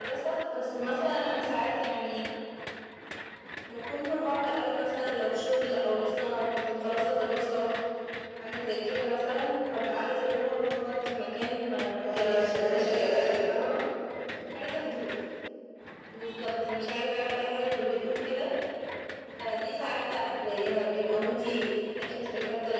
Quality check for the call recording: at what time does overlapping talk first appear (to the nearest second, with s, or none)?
12 s